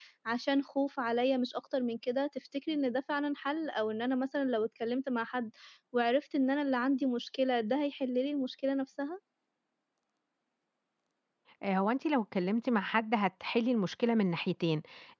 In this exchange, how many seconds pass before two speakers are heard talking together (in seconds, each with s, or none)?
none